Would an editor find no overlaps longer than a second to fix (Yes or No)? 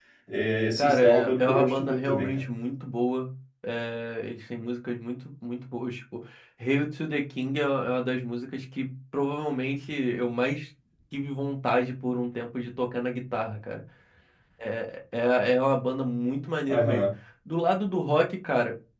No